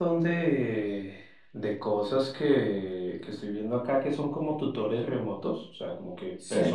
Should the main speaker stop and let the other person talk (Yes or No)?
No